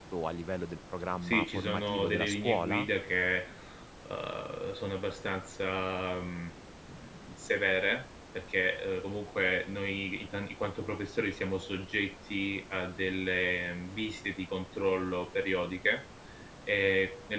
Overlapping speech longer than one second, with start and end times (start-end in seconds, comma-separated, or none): 1.2-2.9